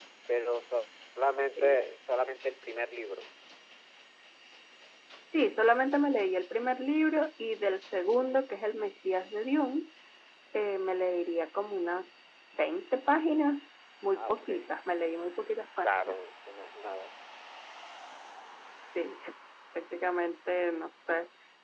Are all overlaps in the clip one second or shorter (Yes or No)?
Yes